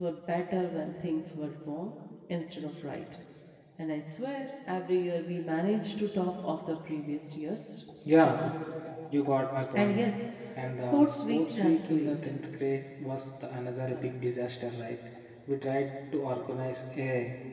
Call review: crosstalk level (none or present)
present